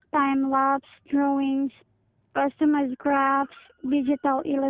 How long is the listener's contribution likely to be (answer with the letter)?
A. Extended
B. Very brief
B